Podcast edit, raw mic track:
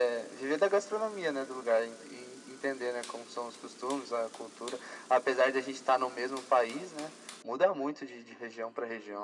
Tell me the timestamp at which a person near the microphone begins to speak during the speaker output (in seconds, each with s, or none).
none